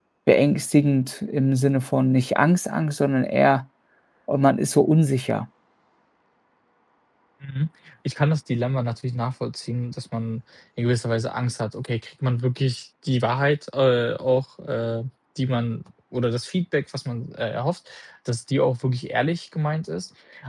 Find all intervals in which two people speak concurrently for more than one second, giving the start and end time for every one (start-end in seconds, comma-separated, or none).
none